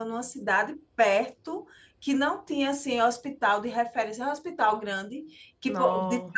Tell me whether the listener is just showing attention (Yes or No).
Yes